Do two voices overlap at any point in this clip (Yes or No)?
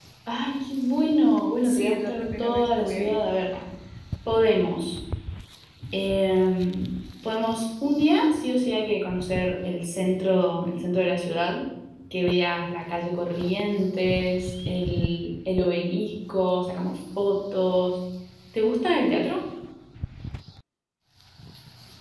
Yes